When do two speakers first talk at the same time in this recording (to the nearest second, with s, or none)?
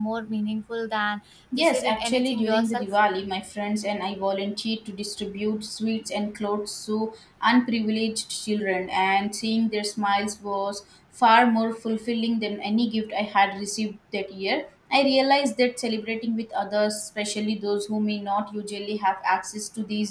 2 s